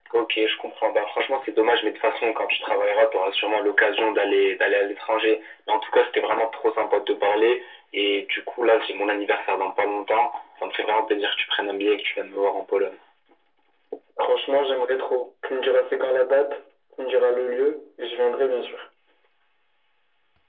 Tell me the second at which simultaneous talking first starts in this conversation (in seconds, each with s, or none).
none